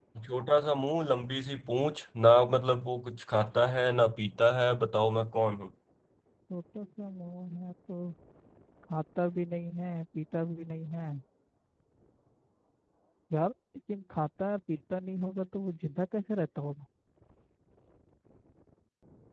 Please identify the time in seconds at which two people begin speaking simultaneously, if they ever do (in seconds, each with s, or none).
none